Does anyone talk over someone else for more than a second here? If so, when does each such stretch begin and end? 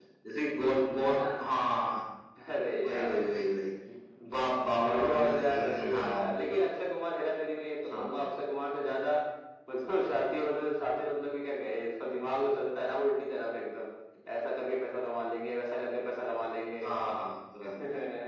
4.8-6.2

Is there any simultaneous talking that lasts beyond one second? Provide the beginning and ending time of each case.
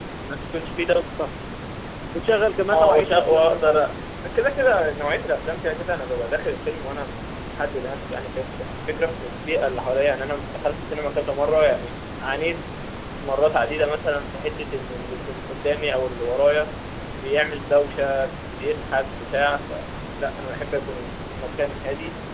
2.7-4.0

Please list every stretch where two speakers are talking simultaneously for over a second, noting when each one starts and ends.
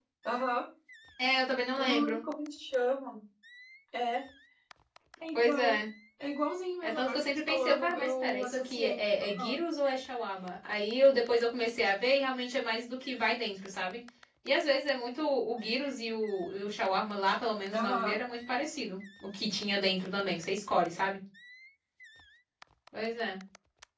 6.8-9.6

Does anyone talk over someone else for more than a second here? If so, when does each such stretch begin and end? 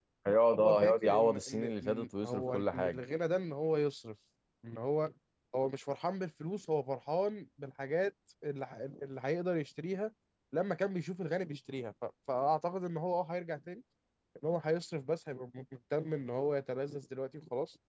0.6-3.0

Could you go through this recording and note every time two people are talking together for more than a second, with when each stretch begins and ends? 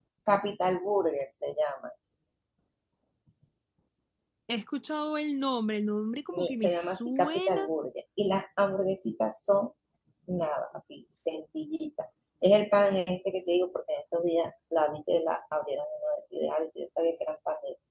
6.3-7.7

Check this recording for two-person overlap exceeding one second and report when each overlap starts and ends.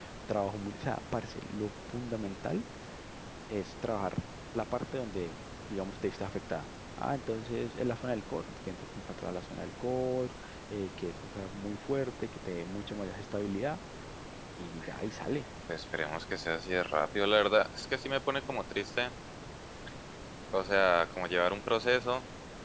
none

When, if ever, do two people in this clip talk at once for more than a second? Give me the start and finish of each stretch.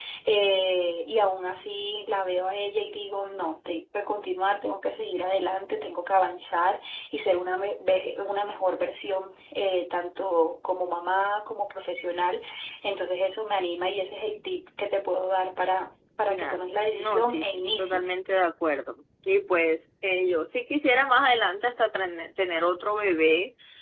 16.3-18.1

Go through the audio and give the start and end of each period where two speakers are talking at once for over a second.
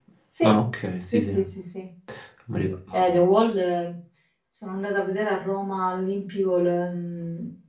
none

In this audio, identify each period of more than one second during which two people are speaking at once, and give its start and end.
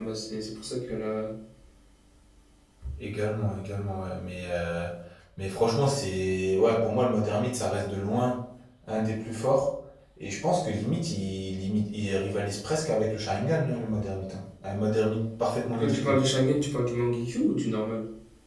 none

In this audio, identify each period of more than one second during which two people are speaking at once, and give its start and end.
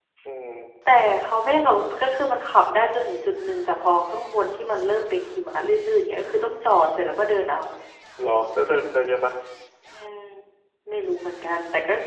none

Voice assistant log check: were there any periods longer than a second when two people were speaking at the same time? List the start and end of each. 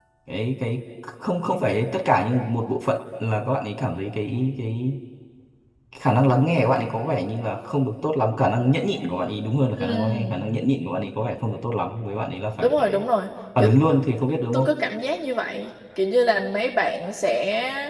none

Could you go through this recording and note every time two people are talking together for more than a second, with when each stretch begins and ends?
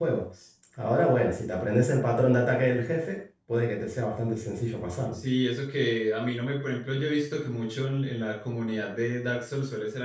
none

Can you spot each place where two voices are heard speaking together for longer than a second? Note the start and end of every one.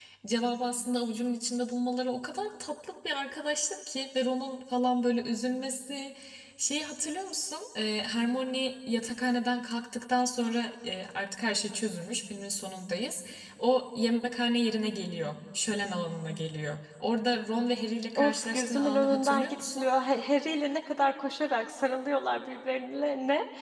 18.1-19.8

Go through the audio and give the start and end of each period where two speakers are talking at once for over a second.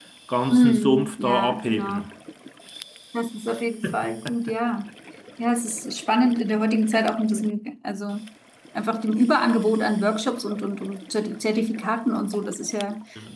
0.5-2.1

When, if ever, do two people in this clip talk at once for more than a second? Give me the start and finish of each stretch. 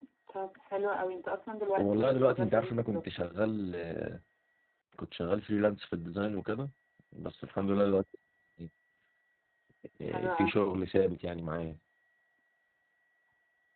1.8-3.0

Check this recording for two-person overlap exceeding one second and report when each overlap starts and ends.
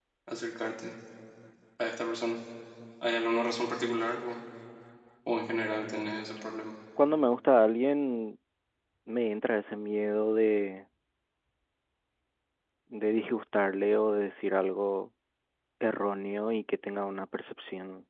none

